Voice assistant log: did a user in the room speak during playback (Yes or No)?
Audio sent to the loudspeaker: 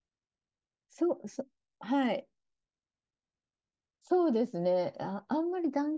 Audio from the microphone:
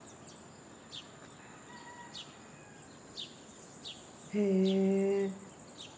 Yes